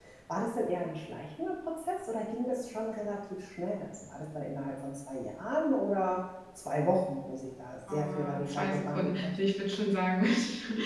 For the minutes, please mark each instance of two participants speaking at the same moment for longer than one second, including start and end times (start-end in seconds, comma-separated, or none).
7.9-9.3